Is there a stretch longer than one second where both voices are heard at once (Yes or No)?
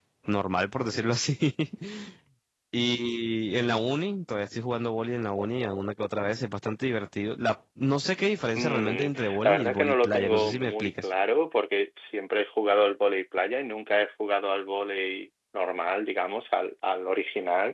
Yes